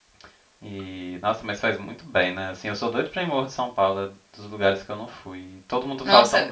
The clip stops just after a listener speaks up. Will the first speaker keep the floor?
No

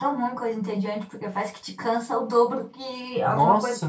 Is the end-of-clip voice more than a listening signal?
Yes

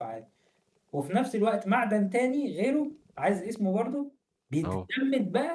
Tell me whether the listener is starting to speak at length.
No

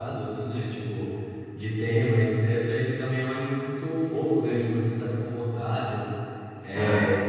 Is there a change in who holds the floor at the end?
No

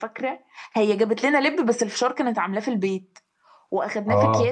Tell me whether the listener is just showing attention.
Yes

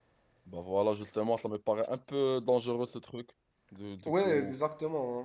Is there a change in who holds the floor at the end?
Yes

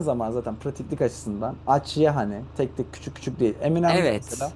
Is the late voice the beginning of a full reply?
No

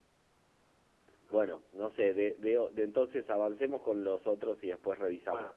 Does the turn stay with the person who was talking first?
No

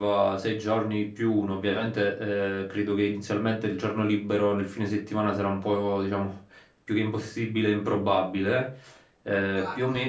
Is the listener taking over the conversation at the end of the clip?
No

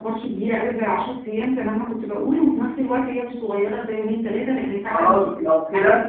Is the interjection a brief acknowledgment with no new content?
No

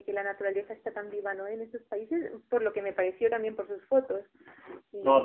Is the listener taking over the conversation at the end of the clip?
Yes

